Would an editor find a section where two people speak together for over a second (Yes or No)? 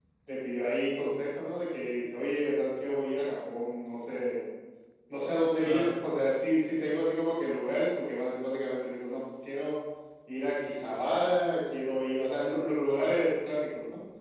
No